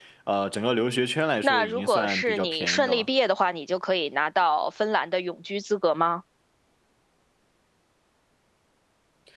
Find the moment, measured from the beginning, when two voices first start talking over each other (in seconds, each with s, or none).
1.4 s